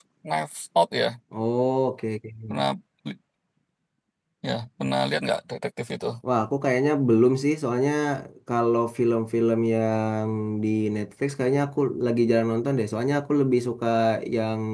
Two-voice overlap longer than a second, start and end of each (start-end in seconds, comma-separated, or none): none